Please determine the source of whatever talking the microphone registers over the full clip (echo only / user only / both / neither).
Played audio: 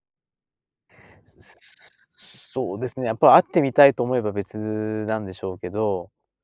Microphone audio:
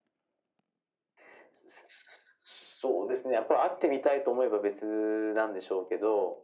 echo only